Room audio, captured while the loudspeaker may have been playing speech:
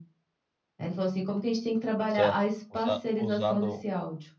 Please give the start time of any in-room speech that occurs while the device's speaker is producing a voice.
2.1 s

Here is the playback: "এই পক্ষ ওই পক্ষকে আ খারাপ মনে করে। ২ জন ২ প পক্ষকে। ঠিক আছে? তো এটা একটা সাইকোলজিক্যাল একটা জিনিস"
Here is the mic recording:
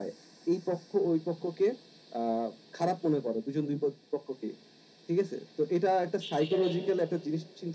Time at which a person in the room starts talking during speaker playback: 6.2 s

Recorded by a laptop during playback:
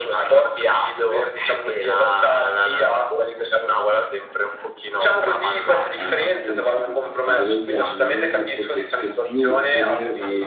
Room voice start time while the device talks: 5.9 s

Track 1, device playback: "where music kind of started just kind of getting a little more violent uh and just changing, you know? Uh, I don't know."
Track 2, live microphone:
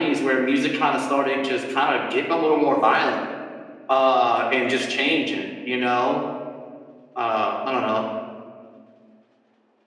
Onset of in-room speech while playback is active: none

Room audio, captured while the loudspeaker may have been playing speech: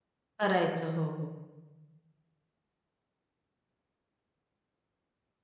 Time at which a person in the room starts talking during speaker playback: 0.4 s

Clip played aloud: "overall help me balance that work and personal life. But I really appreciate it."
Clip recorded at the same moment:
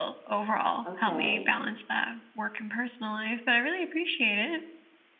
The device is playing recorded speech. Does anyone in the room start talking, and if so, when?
0.8 s

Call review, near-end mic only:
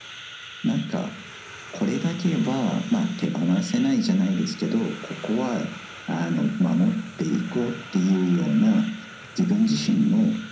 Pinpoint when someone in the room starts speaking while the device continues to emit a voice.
none

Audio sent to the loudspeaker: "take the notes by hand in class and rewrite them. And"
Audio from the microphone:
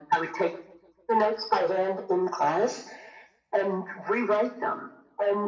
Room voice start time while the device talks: none

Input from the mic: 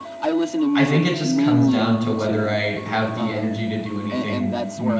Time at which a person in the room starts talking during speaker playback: 0.7 s

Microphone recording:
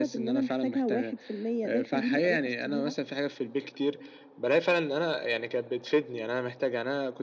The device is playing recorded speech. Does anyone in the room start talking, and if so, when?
none

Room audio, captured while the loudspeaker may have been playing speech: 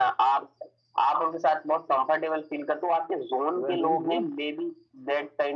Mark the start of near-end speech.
3.6 s

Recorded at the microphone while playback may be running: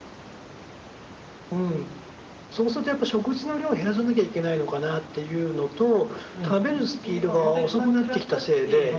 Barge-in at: 6.3 s

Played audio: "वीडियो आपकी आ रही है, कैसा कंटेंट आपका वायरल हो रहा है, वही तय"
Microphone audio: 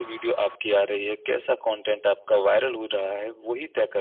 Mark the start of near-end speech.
none

